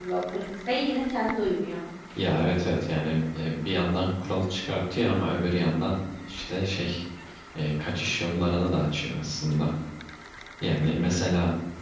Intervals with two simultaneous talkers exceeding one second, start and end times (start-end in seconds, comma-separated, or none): none